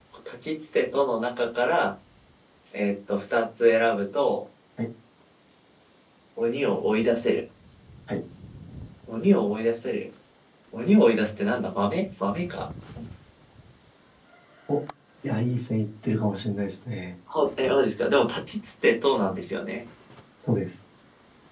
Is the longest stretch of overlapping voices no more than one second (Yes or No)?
Yes